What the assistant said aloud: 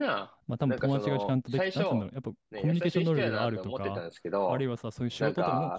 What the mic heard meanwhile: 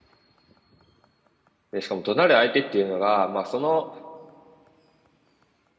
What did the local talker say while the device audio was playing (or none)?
で、しかも怒鳴る相手っていうのが、まあその、